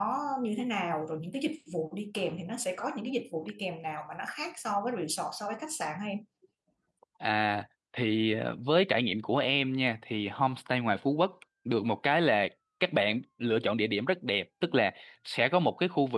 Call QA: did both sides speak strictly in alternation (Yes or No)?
Yes